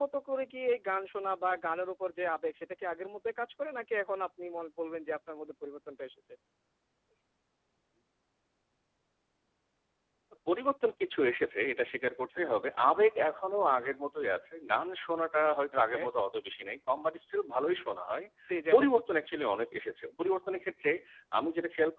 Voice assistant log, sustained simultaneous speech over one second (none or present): none